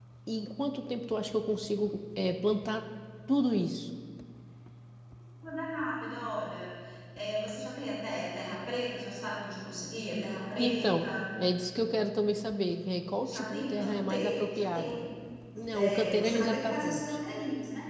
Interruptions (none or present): present